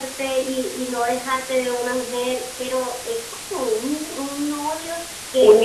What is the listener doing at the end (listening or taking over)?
taking over